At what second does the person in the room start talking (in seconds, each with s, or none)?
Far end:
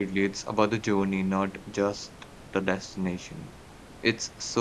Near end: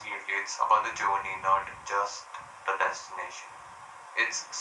none